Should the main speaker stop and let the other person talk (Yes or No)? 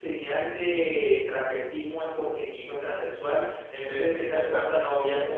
No